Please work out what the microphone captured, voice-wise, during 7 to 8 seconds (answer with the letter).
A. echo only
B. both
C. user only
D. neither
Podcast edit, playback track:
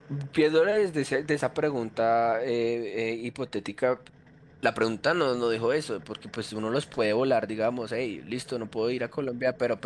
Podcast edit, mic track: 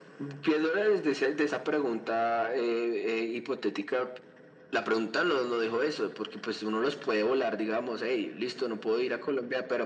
A